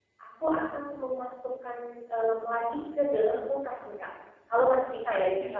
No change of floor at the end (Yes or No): Yes